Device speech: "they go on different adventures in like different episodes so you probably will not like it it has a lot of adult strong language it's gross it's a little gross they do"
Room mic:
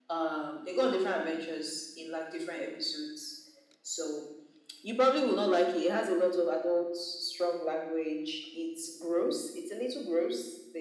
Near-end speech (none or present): none